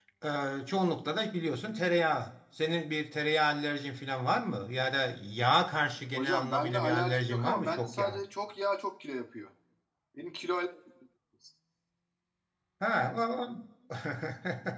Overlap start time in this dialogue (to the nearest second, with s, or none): 6 s